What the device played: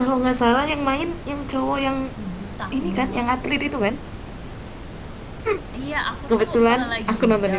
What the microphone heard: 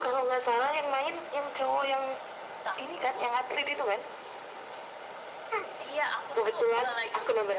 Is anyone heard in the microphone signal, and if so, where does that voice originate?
echo only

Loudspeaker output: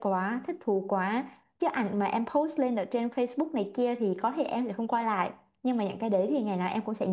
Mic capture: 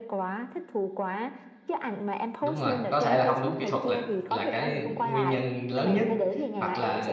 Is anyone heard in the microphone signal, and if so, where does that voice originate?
both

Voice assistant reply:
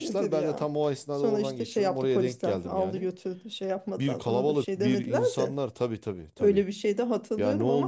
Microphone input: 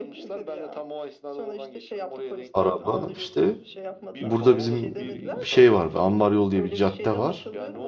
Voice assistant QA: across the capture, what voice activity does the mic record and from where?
both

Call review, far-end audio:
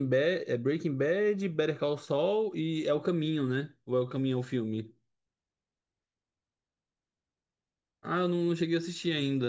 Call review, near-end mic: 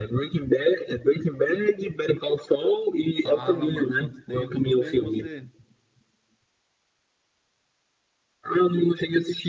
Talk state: both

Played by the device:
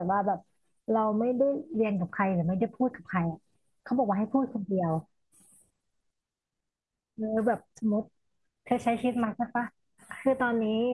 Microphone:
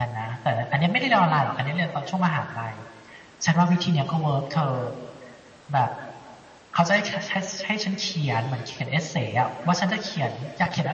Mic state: user only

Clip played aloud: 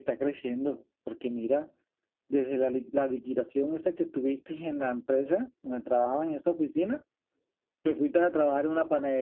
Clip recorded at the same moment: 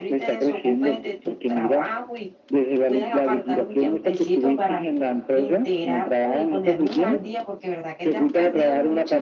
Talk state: both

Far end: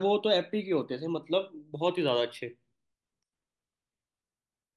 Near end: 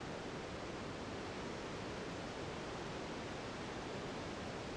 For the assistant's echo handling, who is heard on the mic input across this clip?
neither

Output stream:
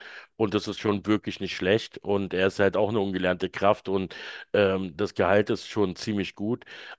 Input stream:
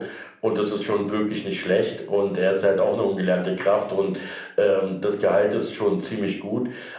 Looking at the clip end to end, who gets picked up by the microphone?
echo only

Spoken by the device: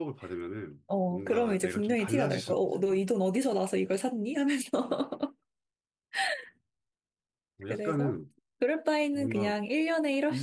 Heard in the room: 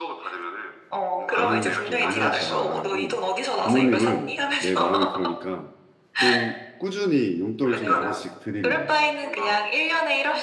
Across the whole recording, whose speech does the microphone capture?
both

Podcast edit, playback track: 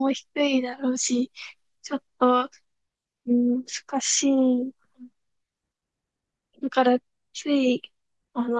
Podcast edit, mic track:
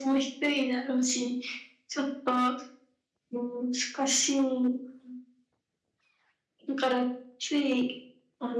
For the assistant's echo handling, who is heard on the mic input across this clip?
echo only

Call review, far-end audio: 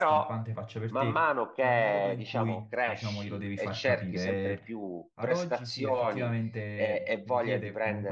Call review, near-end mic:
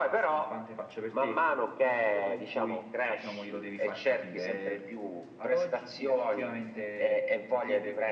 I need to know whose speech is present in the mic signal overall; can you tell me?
echo only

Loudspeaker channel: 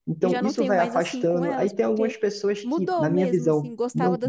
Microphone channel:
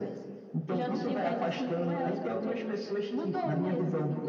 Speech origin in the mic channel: echo only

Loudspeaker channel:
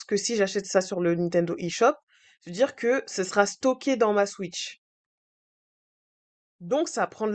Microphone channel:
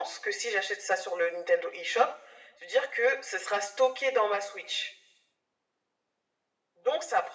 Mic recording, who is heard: echo only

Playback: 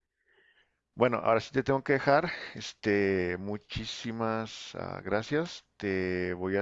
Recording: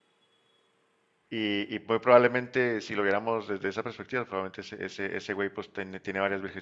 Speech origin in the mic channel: user only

